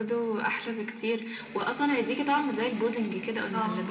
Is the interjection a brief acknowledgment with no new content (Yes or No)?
No